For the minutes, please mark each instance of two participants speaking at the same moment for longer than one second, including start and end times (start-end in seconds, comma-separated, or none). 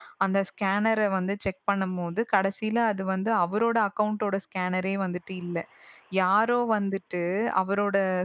none